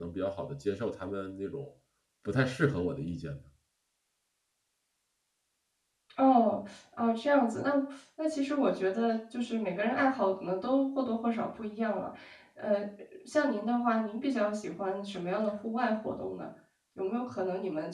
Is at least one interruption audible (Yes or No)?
No